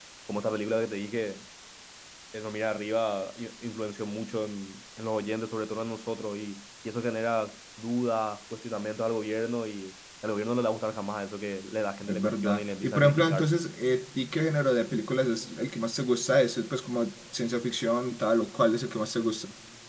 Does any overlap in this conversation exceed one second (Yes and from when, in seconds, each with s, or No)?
Yes, from 12.0 s